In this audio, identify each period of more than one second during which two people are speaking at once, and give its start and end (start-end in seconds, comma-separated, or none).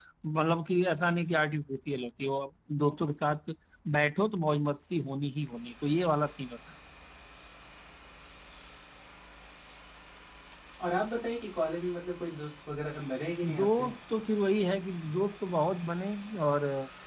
none